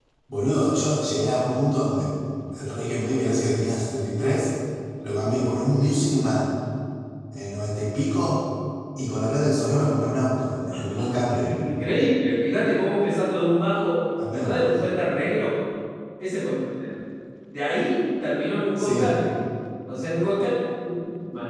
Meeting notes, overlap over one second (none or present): none